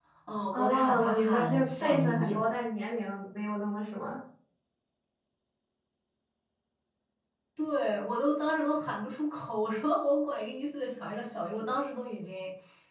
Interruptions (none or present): present